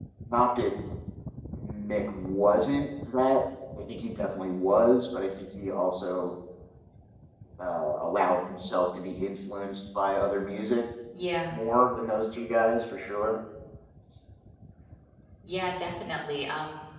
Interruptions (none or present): none